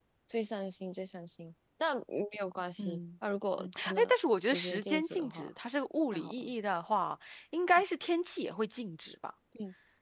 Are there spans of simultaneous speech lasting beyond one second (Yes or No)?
Yes